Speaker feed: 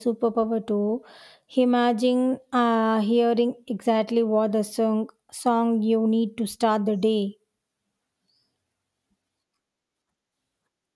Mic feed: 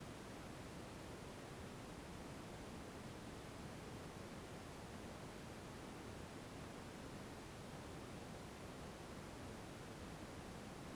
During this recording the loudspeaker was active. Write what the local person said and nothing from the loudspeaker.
none

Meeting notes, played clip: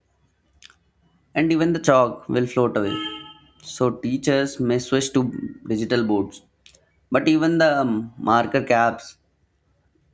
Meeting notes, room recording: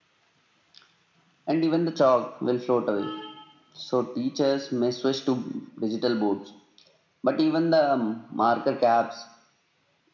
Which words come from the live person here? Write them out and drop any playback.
none

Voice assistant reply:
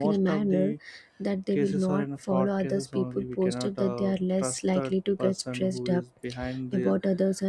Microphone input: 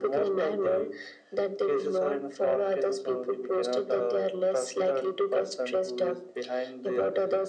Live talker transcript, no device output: none

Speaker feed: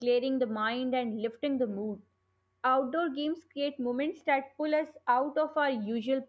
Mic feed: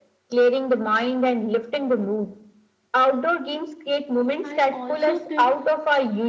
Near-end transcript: I also think

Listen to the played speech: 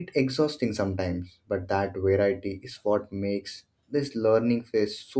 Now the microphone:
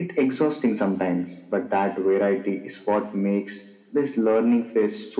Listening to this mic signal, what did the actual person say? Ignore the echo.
none

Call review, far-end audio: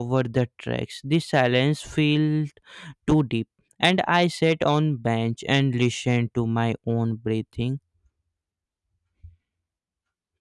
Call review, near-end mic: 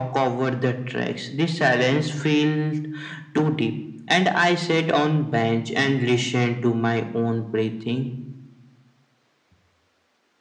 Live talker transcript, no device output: none

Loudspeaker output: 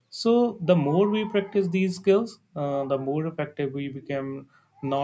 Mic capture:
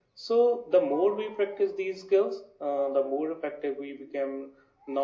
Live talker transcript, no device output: none

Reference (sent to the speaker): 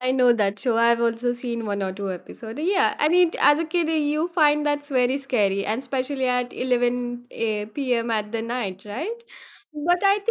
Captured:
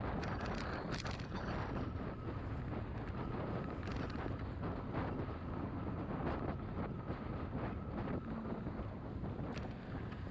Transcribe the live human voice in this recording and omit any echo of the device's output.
none

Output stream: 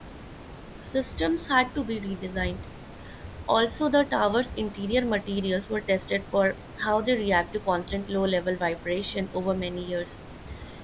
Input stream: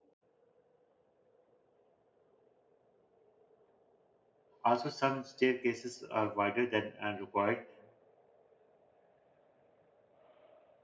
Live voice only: Also, some staircases are wider than uh, required,

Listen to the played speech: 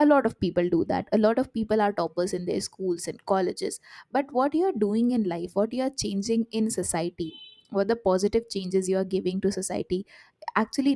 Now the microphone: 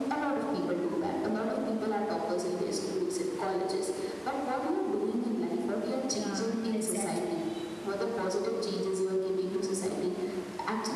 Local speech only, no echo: yeah, yeah, exactly.

